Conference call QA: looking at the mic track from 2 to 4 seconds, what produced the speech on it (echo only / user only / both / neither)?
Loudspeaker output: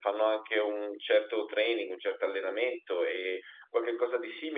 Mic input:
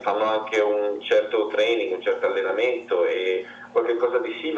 echo only